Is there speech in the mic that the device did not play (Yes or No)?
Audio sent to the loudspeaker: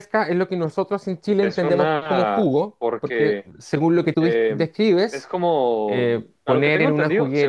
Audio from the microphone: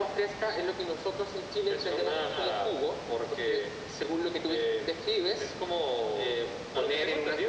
No